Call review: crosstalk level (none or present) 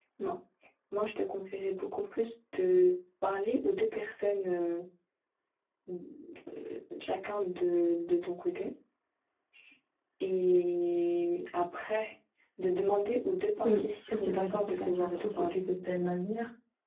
present